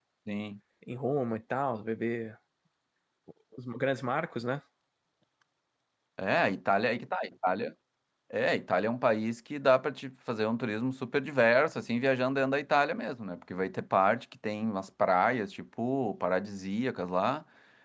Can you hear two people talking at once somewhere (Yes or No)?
No